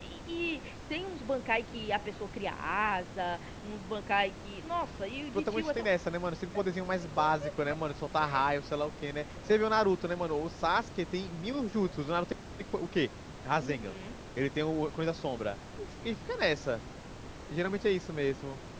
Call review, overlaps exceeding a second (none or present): none